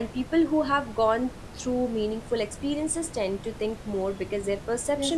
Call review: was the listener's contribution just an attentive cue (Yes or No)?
No